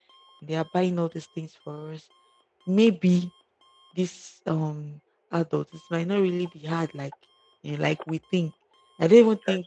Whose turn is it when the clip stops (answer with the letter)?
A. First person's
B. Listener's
A